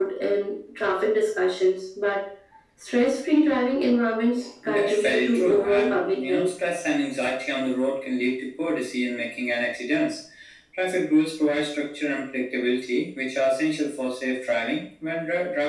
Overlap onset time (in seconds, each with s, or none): 4.6 s